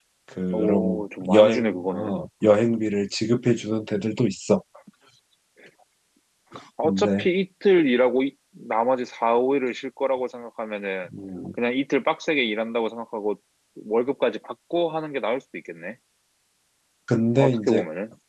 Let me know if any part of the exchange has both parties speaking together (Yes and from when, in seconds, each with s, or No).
Yes, from 0.5 s